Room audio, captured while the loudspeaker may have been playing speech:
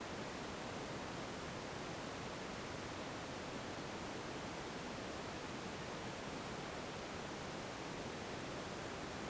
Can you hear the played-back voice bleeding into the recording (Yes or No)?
No